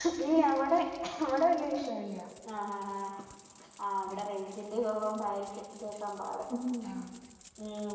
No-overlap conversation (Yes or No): Yes